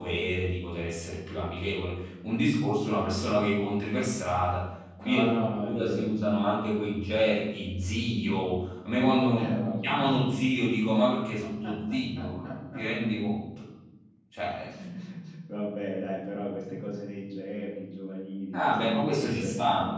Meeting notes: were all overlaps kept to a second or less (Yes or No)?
No